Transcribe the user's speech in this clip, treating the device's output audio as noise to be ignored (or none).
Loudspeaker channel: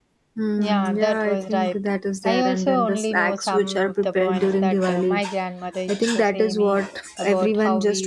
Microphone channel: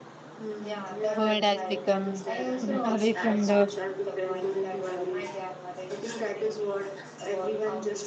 world has become mm, away from the